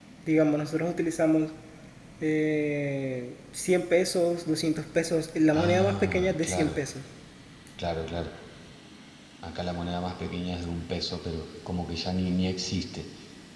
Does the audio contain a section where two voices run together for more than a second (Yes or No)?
Yes